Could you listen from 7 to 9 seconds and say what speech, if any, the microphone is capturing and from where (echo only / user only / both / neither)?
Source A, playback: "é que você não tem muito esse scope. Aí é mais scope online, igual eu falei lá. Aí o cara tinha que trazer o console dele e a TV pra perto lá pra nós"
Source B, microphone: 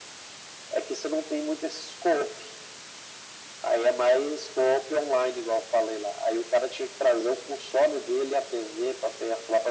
echo only